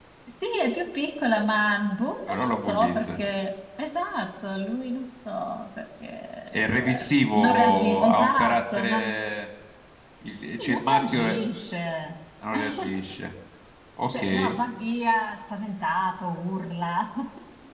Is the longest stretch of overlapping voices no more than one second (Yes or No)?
No